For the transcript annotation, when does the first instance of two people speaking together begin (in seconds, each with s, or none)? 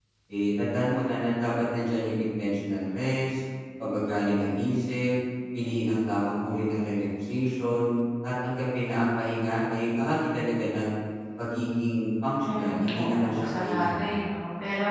12.4 s